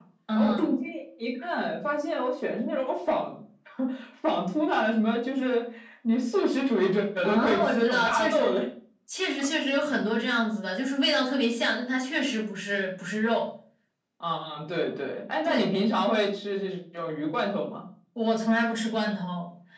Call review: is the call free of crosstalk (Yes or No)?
No